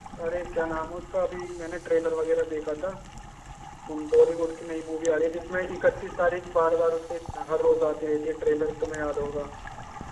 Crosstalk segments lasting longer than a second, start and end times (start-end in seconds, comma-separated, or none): none